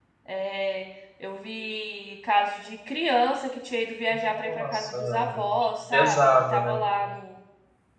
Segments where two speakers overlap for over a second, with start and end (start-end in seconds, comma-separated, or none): 4.4-6.8